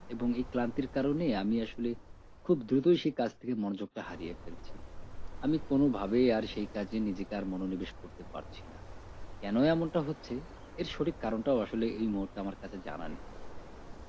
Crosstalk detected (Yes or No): No